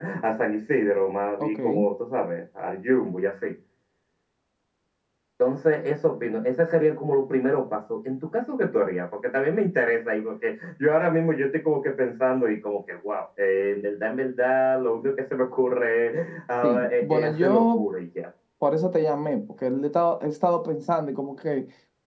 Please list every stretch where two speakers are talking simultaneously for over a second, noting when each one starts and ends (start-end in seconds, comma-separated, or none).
16.6-17.9